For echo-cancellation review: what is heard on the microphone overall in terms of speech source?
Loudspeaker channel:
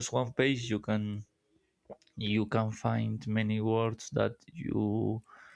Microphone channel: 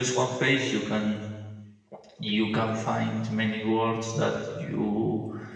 echo only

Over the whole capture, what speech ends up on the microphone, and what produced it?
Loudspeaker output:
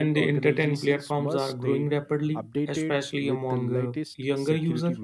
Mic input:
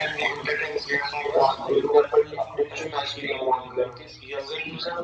echo only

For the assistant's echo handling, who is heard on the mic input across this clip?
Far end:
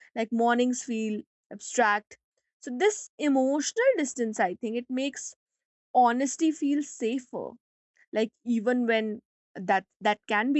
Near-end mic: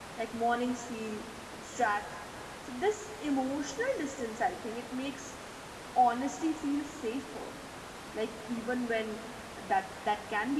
echo only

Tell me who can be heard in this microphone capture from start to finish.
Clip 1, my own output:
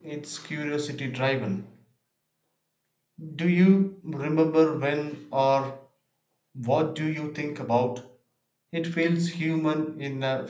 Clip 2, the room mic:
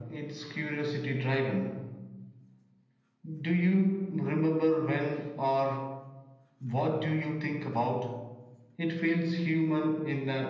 echo only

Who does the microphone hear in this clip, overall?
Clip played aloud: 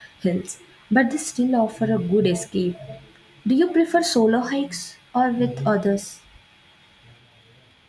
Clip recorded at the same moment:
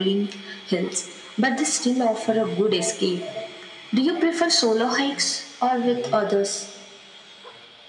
echo only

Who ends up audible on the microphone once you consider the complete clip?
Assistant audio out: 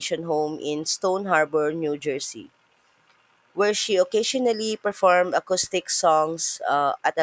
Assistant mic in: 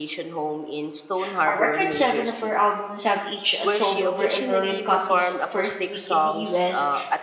both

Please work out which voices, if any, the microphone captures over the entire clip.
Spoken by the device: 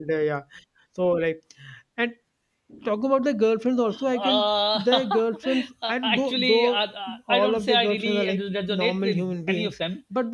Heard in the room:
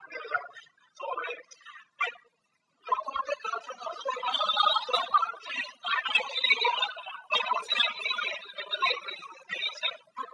echo only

